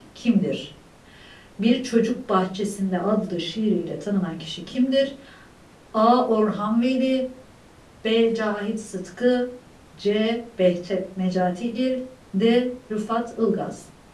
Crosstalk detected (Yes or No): No